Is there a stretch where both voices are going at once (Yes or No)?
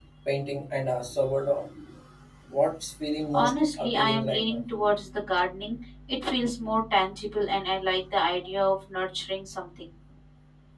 Yes